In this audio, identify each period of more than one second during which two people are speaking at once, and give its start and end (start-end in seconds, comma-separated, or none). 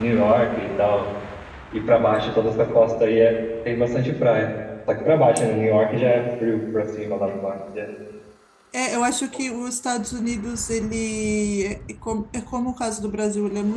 none